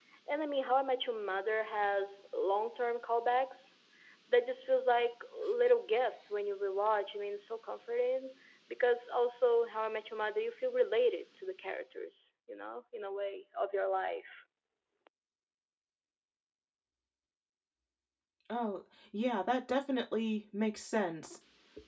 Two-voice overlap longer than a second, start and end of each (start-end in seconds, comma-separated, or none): none